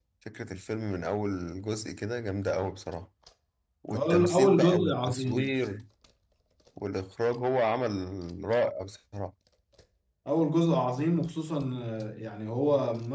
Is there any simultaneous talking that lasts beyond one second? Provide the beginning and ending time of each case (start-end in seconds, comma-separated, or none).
3.9-5.5